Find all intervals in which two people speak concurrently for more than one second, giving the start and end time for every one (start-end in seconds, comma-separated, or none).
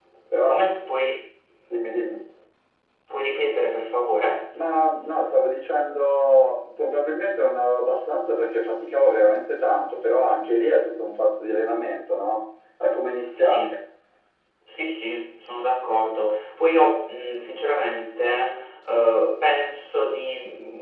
none